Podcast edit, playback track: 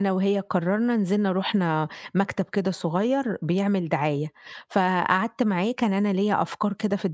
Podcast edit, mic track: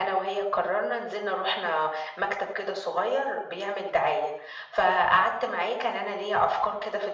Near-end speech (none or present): none